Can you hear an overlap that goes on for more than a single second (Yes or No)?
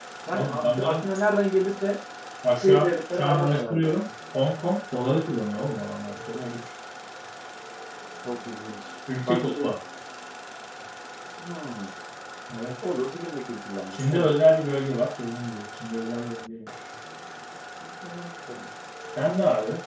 Yes